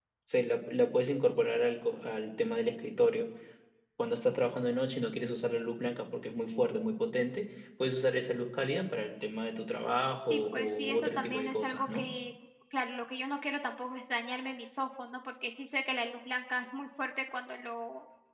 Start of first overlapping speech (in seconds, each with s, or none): 10.3 s